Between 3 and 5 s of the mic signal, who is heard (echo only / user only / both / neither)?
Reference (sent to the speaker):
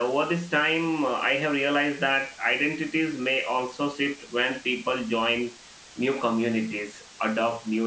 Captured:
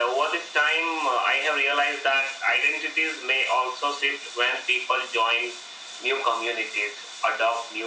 echo only